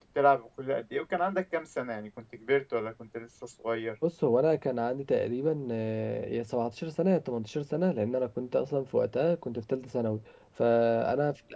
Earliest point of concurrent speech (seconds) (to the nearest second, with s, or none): none